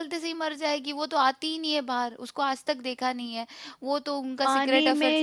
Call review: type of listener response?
taking over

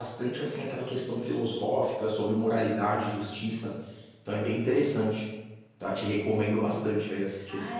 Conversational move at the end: taking over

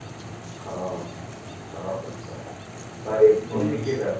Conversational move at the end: listening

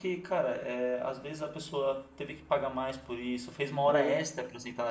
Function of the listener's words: listening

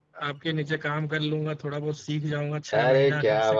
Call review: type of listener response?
taking over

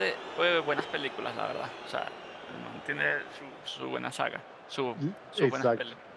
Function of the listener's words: taking over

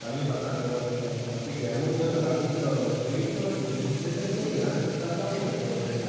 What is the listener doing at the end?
taking over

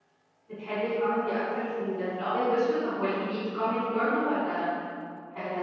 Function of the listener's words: taking over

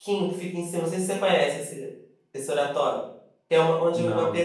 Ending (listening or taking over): listening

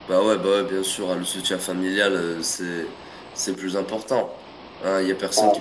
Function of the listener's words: listening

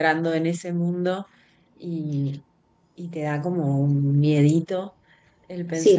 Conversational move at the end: taking over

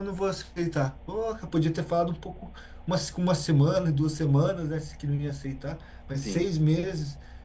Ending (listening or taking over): listening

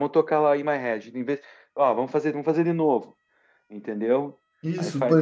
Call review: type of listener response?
taking over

